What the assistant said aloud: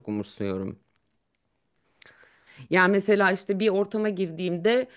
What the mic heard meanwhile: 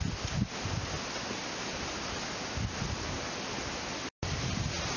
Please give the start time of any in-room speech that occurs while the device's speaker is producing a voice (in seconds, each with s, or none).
none